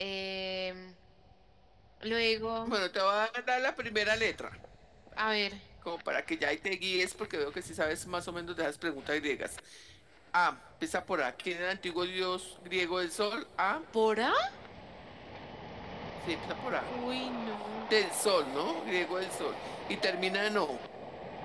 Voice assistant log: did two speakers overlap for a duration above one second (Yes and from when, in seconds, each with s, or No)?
No